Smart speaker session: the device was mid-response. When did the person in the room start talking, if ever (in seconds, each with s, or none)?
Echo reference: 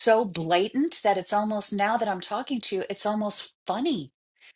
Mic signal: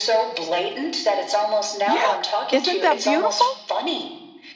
1.8 s